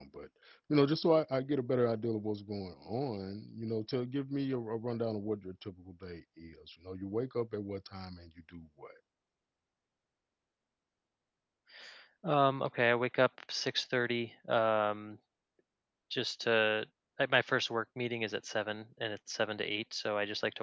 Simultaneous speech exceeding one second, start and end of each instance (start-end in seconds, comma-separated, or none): none